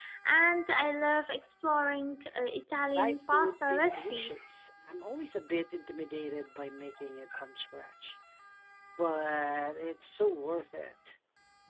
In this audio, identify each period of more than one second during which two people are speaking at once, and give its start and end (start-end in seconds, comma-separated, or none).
3.0-4.4